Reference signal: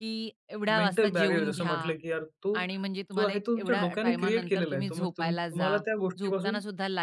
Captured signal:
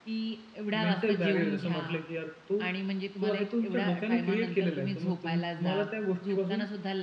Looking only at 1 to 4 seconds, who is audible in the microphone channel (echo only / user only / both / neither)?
echo only